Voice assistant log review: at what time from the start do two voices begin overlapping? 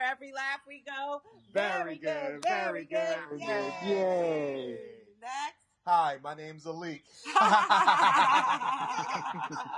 3.4 s

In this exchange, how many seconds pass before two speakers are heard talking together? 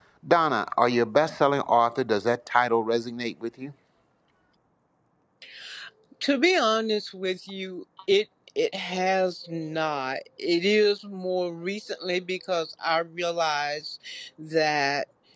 none

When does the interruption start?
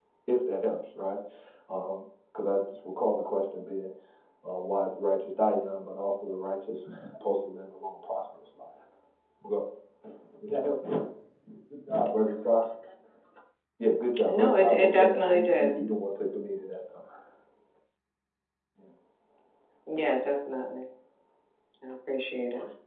14.3 s

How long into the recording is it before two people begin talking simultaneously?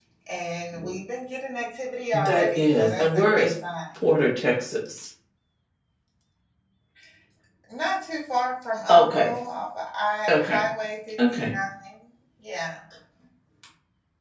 2.1 s

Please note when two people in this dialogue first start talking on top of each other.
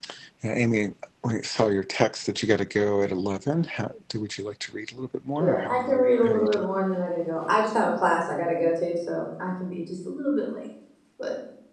5.4 s

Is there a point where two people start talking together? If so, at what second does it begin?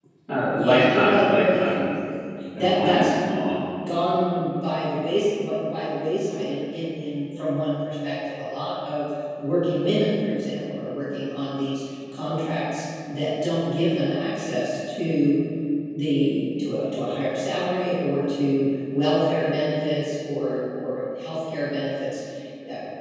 0.5 s

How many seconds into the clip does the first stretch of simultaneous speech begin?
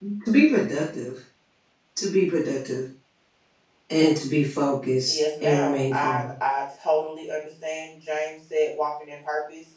5.1 s

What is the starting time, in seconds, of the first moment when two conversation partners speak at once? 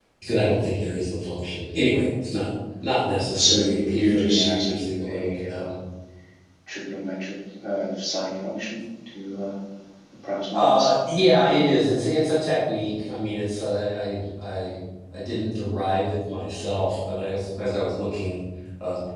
3.3 s

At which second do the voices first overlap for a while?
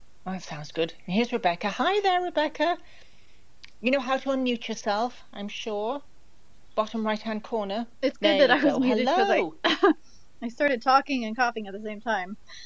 8.0 s

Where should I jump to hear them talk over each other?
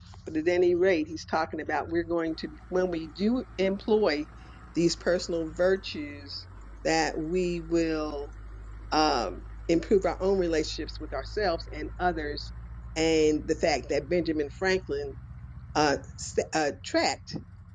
none

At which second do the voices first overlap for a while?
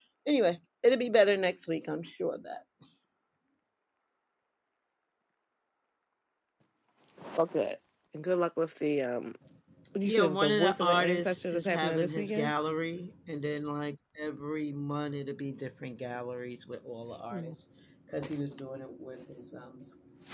10.0 s

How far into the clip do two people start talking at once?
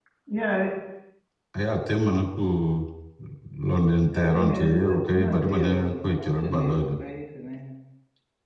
4.1 s

